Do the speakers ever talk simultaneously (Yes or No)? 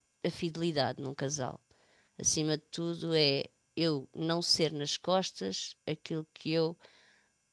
No